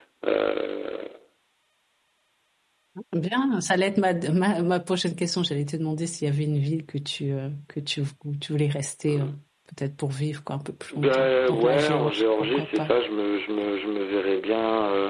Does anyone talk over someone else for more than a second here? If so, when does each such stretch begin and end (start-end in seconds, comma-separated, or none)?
10.9-12.9